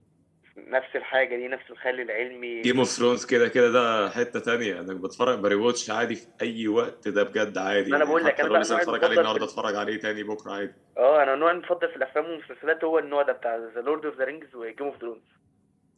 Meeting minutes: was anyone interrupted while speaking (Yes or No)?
Yes